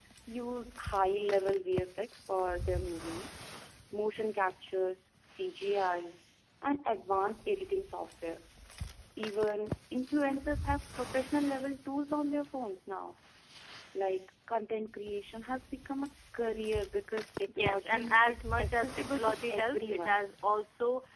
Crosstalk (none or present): present